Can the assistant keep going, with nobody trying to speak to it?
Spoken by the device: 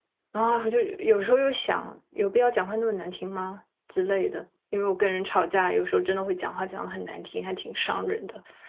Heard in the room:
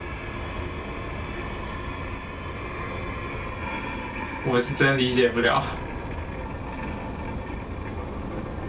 No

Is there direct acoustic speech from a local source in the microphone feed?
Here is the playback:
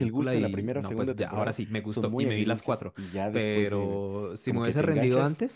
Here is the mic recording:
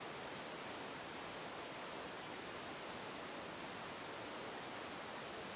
No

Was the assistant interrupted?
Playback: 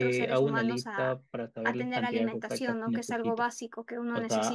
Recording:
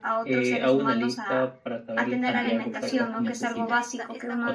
Yes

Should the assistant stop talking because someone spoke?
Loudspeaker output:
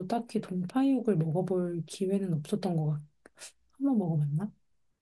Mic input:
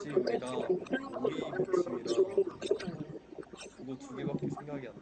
Yes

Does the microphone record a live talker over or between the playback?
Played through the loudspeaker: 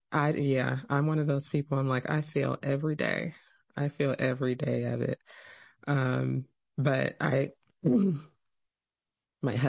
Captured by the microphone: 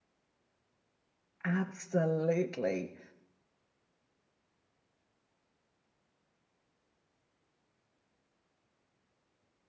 Yes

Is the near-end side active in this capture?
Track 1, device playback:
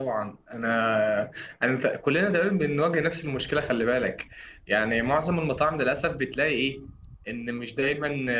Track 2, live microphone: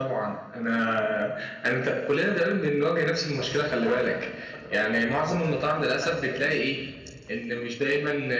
Yes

